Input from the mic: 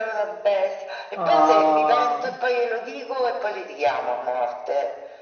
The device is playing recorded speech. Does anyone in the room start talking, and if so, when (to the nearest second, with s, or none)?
1 s